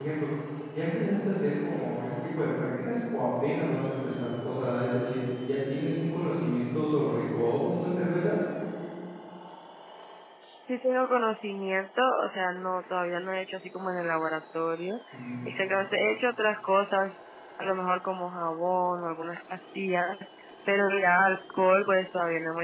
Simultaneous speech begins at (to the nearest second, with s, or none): none